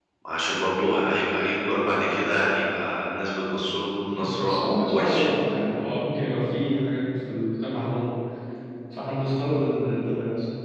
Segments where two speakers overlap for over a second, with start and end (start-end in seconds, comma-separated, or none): 4.1-5.3